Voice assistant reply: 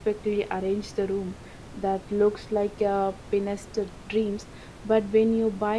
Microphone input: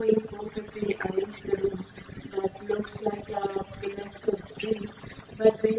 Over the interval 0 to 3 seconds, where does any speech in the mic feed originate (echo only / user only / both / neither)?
echo only